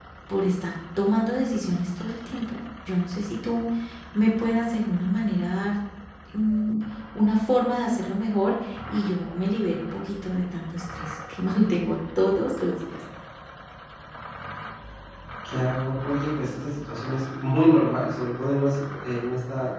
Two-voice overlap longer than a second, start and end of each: none

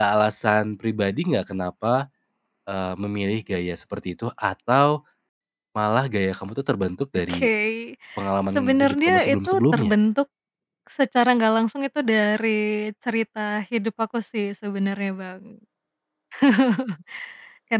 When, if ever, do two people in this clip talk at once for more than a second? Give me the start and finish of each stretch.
8.6-9.9

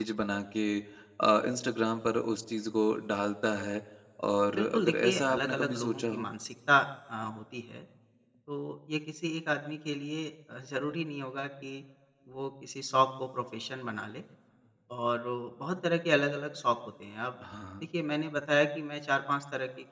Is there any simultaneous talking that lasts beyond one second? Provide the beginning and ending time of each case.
4.5-6.3

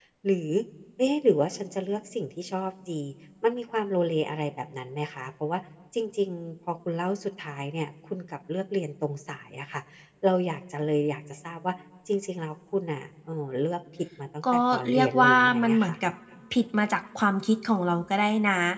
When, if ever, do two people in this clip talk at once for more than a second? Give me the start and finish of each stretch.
14.5-15.9

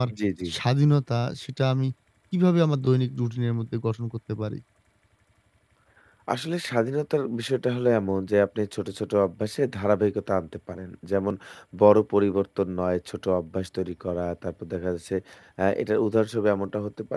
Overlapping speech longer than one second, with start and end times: none

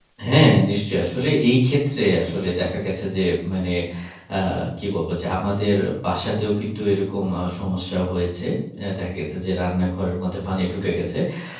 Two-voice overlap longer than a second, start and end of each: none

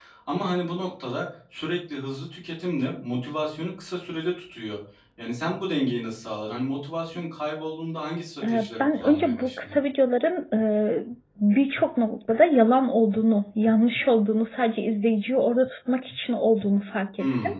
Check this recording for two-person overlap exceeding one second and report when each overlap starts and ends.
8.4-9.8

